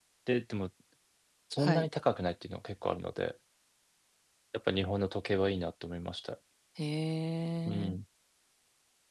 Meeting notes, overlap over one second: none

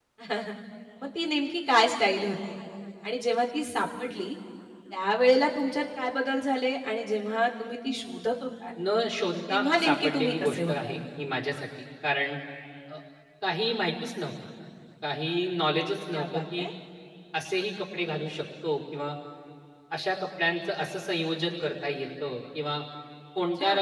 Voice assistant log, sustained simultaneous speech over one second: present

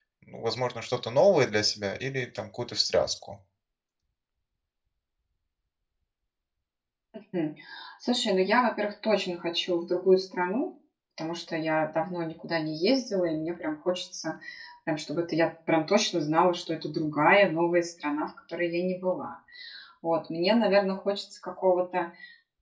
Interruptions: none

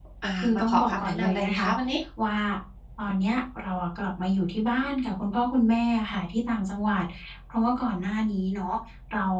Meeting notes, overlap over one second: present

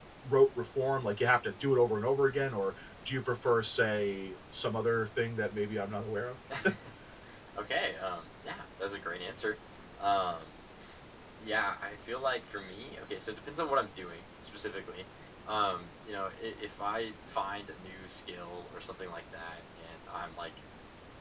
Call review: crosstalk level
none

